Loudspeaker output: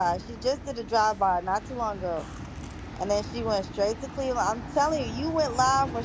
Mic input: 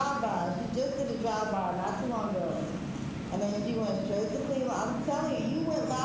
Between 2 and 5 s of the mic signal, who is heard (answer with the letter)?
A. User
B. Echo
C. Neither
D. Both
B